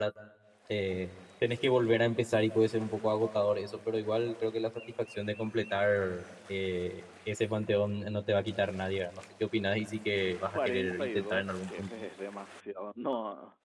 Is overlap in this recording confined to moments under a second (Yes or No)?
No